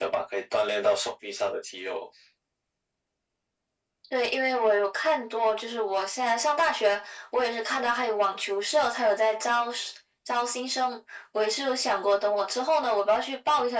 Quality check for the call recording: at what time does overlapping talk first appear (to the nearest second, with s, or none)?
none